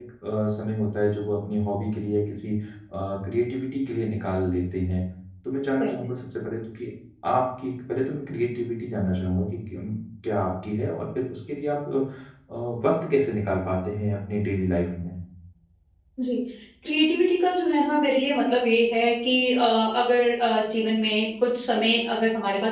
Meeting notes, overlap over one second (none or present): none